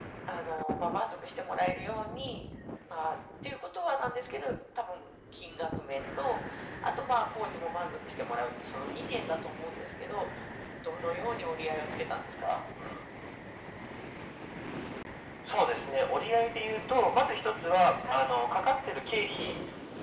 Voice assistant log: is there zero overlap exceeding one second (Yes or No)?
Yes